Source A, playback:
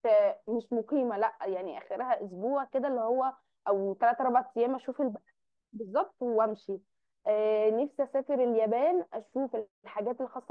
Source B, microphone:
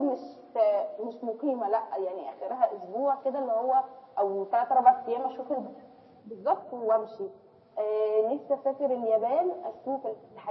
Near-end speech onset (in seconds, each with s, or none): none